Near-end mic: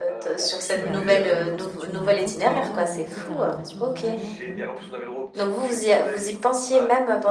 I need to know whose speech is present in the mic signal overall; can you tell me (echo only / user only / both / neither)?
both